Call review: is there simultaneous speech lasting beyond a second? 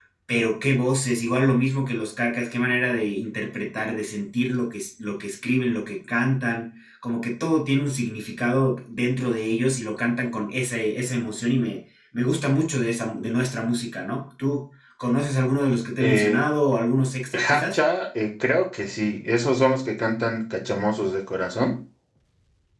No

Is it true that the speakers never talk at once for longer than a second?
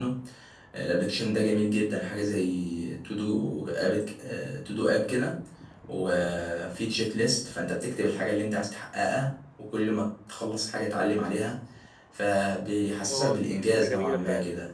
No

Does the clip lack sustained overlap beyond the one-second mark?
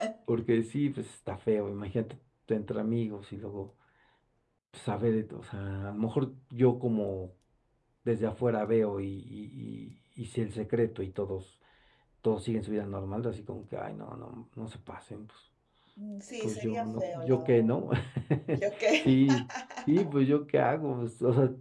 No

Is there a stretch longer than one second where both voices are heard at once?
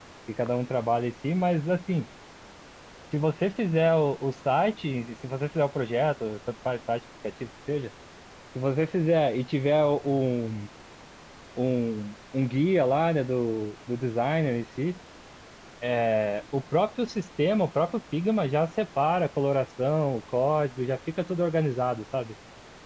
No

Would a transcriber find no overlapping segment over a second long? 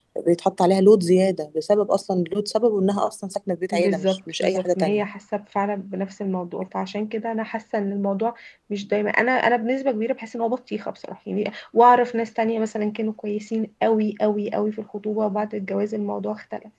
No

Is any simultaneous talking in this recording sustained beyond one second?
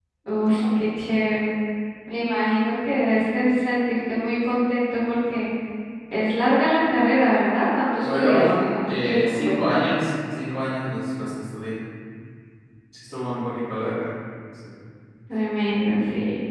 Yes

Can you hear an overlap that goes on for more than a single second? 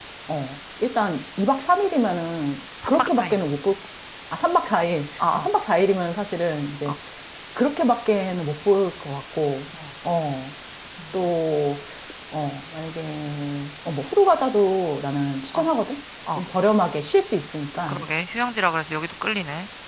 No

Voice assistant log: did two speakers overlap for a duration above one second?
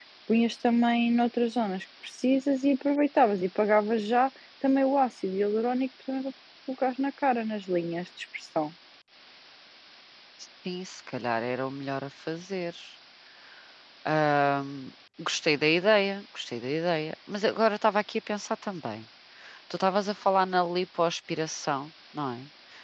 No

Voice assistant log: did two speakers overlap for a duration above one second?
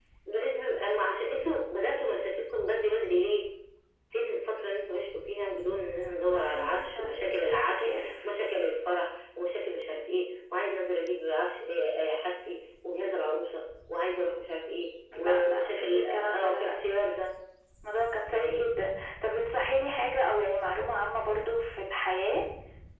Yes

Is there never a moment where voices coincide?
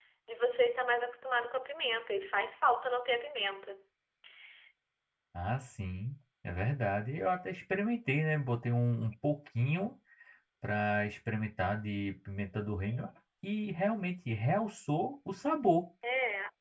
Yes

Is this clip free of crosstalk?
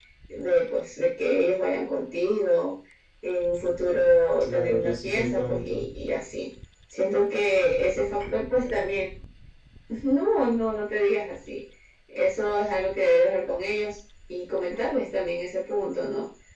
No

